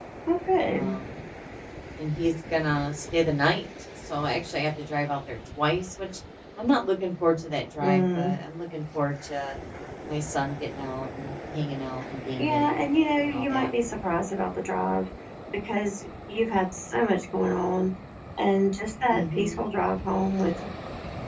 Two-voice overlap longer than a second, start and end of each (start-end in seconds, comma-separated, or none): 12.4-13.7